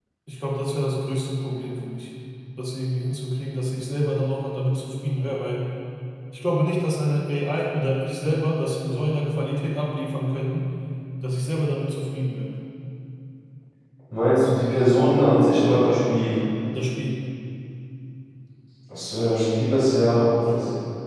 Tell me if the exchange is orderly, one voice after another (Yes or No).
Yes